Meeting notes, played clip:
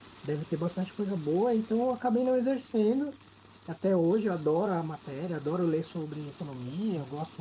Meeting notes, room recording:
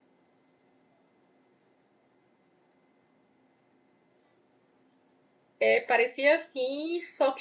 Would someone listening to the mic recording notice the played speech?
No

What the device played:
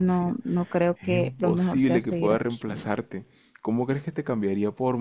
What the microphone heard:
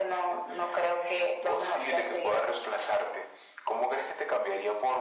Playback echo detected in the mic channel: Yes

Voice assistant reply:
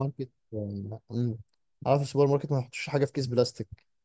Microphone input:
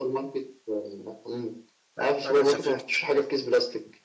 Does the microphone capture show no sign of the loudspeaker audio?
No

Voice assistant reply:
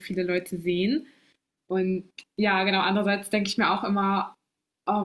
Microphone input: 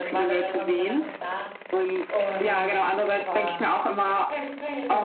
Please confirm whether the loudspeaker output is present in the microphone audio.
Yes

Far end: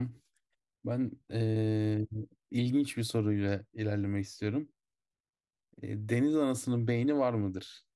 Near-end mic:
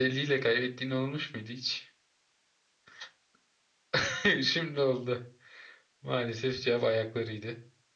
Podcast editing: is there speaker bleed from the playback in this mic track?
No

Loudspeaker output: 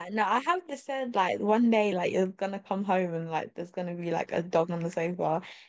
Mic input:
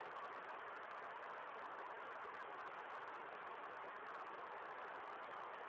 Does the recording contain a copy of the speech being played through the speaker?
No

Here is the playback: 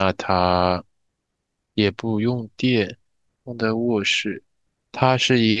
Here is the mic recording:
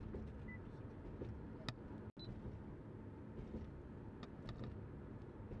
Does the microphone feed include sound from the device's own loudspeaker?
No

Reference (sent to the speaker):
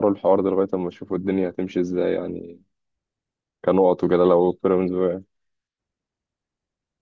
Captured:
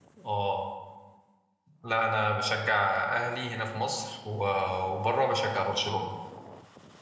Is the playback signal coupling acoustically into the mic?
No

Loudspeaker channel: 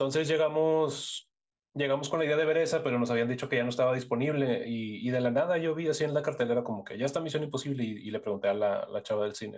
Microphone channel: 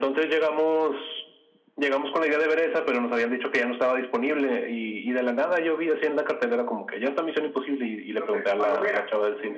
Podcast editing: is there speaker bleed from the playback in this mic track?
Yes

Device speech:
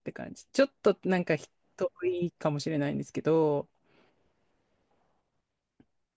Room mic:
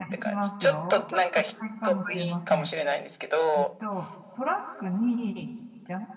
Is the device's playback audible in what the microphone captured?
Yes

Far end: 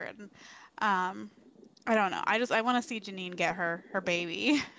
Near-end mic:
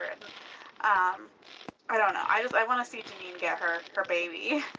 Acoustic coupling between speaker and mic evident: Yes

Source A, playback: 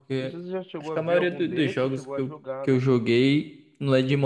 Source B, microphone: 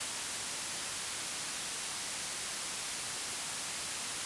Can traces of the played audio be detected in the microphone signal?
No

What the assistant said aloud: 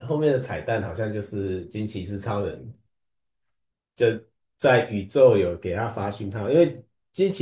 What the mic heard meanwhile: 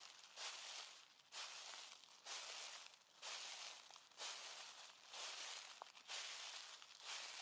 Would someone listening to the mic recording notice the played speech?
No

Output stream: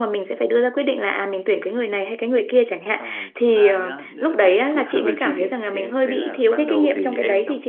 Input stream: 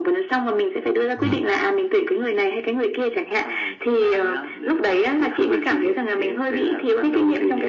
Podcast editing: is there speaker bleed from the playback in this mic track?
Yes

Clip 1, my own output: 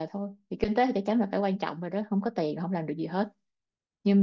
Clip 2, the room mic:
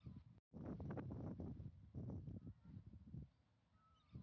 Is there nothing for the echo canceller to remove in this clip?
Yes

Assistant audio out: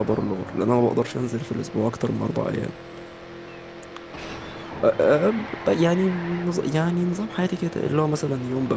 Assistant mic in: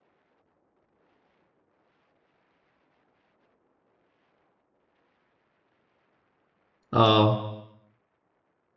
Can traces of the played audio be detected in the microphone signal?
No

